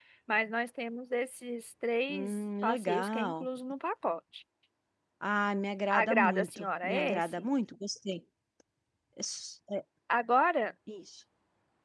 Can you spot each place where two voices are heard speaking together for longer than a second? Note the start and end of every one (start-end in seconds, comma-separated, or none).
2.1-3.5, 5.9-7.5